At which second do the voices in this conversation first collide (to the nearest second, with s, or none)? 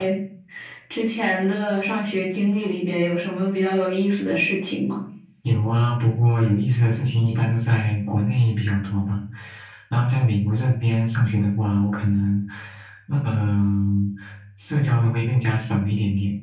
none